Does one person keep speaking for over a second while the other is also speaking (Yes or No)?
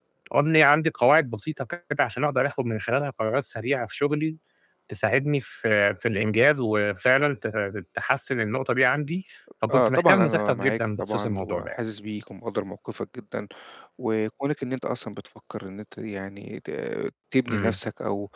Yes